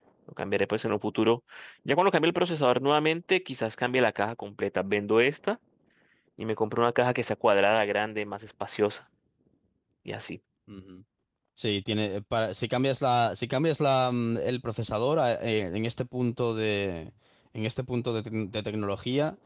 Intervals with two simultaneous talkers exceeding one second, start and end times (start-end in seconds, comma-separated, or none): none